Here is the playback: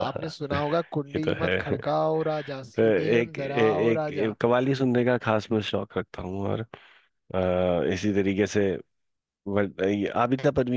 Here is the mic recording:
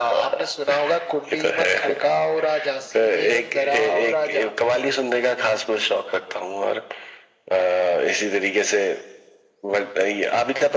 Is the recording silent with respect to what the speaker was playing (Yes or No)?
No